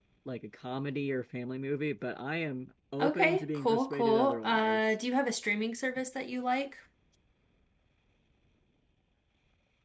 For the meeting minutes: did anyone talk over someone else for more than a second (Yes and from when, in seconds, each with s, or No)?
Yes, from 3.0 s